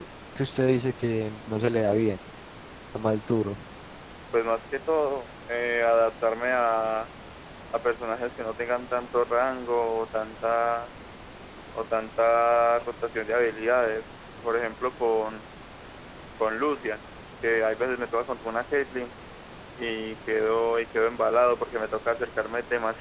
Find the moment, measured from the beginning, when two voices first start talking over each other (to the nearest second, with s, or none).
none